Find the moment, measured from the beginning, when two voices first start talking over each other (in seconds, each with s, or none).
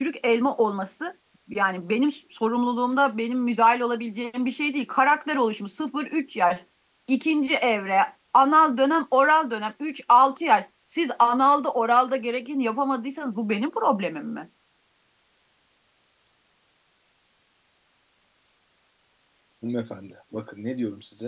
none